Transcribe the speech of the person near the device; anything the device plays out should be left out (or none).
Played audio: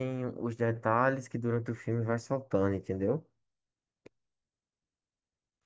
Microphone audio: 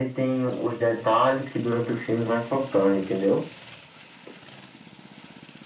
none